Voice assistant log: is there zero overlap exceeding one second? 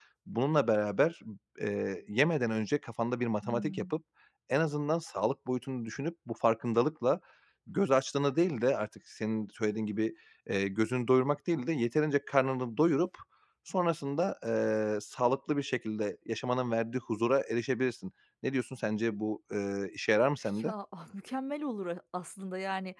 Yes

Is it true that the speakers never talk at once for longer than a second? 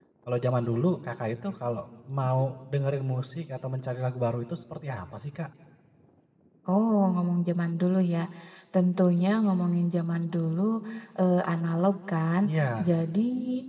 Yes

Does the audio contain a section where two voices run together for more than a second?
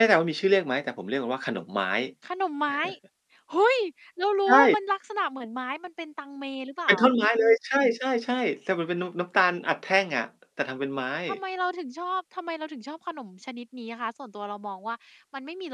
No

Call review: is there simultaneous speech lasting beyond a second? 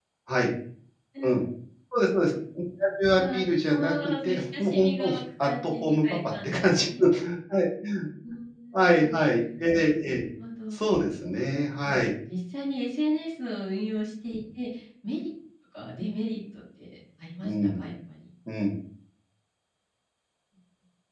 Yes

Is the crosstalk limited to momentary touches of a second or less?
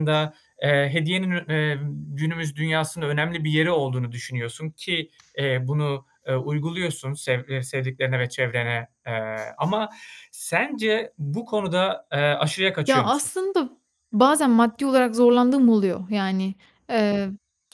Yes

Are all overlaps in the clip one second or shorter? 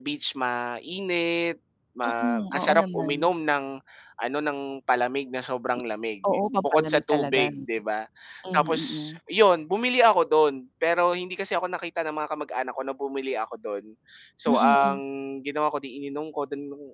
No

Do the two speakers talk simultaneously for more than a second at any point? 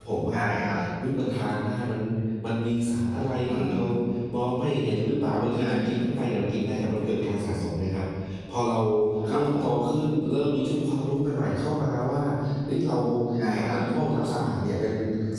No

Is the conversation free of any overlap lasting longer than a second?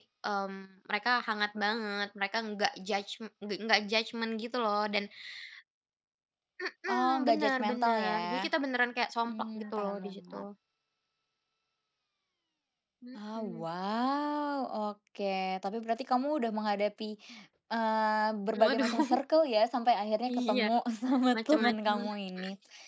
No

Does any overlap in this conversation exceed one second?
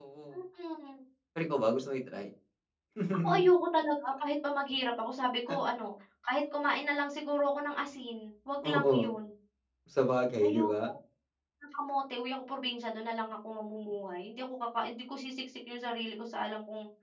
No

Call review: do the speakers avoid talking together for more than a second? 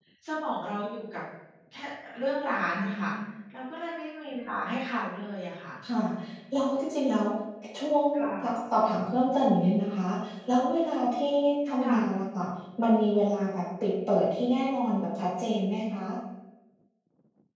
Yes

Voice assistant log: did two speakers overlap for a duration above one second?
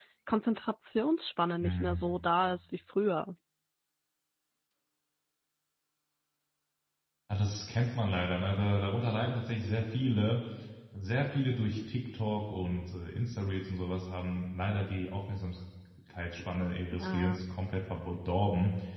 No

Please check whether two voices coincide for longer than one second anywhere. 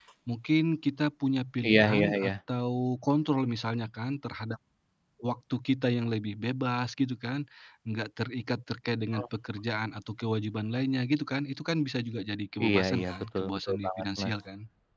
Yes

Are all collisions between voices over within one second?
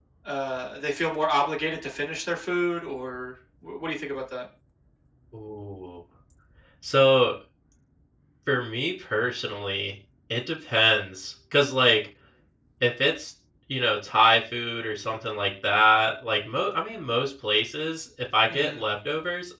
Yes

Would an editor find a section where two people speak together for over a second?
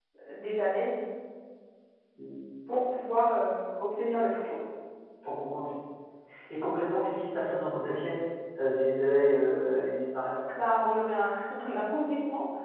No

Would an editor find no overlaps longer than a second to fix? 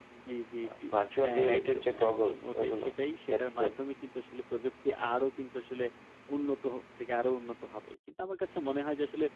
No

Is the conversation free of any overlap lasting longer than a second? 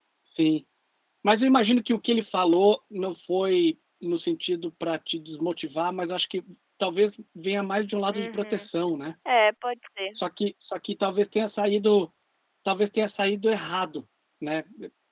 Yes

